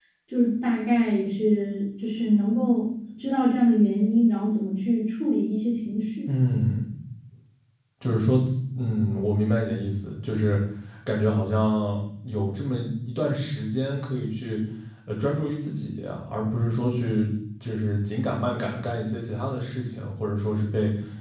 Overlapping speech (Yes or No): No